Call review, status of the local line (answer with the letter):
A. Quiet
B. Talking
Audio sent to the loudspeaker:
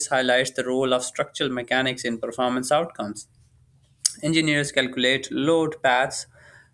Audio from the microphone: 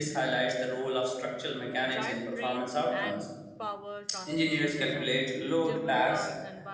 B